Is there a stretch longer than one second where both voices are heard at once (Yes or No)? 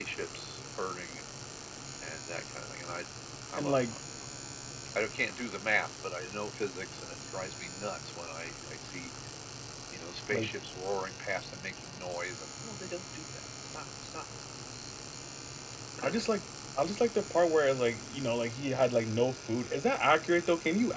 No